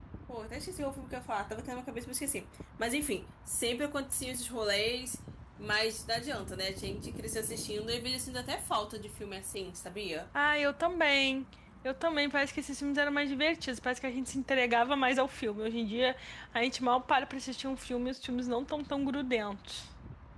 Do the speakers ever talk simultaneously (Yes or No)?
No